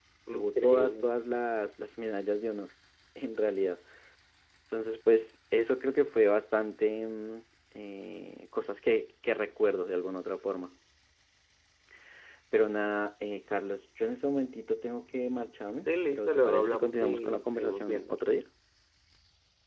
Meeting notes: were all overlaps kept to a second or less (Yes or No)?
No